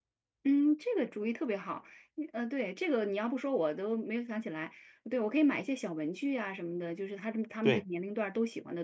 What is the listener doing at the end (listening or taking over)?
listening